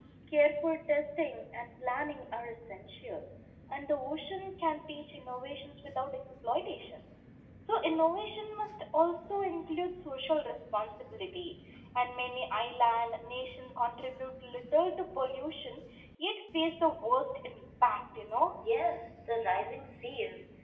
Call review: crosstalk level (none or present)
none